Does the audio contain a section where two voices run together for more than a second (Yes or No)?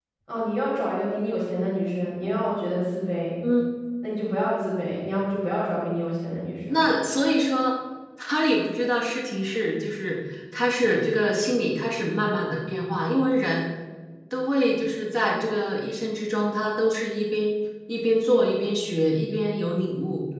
No